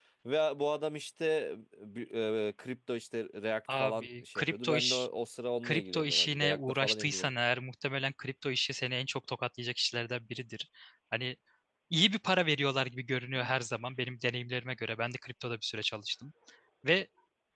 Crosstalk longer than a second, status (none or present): present